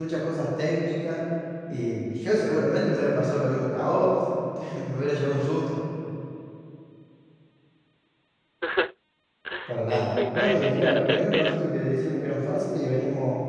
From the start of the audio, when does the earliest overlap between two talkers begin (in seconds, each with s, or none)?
9.9 s